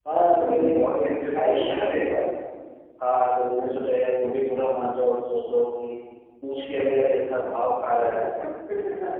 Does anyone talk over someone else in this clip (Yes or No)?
Yes